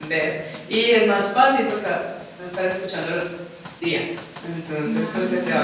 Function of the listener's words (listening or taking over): listening